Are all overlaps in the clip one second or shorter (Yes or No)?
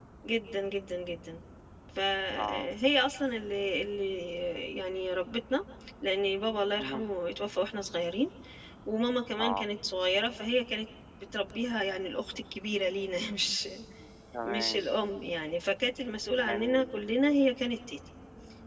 Yes